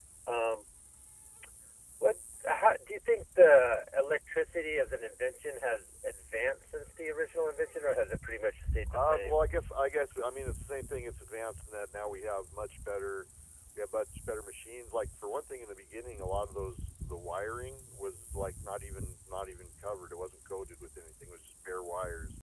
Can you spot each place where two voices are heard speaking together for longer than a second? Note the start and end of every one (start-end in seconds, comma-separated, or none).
none